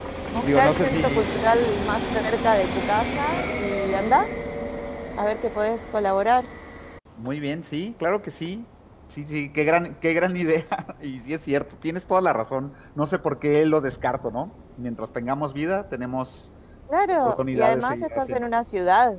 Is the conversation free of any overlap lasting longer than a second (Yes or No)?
No